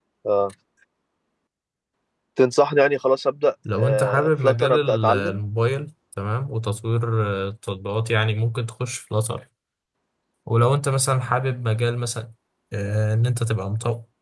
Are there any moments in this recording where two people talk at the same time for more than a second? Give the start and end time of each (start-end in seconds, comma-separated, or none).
3.8-5.4